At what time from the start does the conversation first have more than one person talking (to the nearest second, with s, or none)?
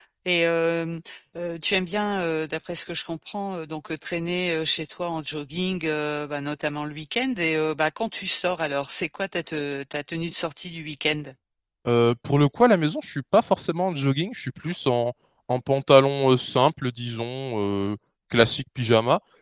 none